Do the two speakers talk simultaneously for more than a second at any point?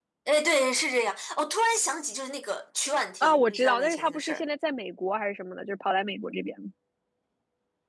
Yes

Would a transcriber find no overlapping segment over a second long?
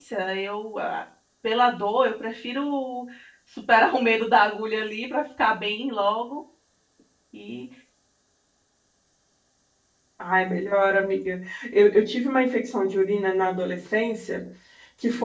Yes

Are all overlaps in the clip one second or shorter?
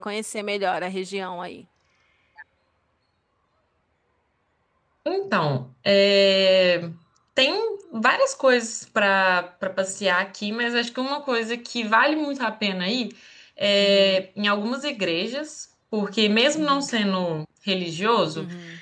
Yes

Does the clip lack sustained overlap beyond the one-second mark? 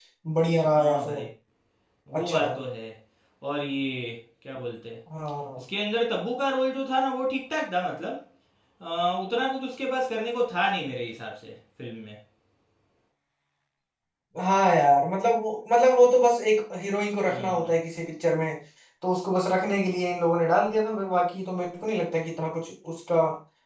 Yes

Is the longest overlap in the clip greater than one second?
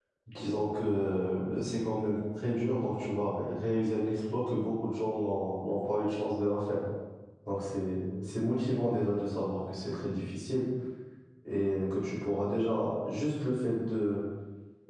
No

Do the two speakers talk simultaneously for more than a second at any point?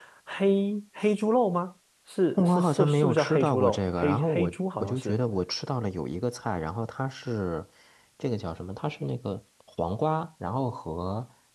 Yes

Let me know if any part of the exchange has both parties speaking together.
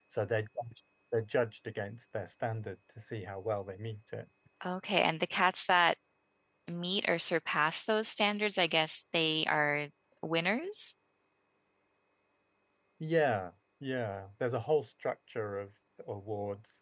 No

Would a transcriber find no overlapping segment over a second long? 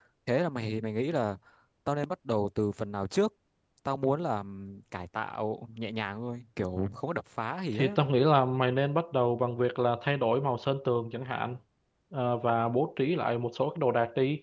Yes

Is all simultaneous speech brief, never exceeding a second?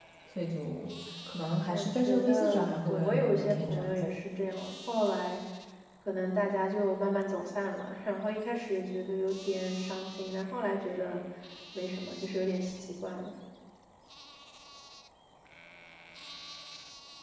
No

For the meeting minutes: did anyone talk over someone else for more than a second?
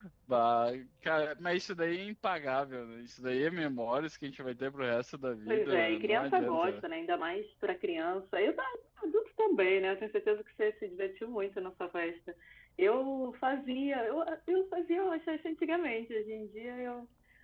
Yes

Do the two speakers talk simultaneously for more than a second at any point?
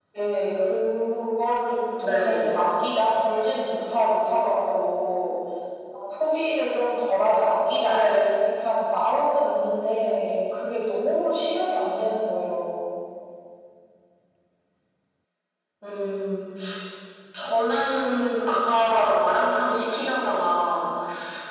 No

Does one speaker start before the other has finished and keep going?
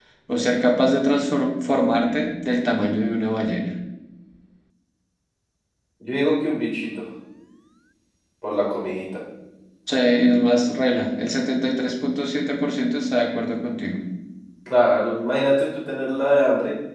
No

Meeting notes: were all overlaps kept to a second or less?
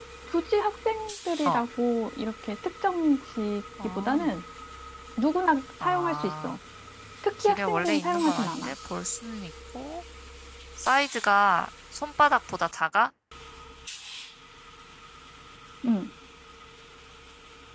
No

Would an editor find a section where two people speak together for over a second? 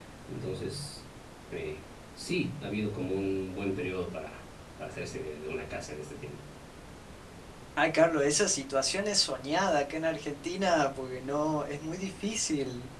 No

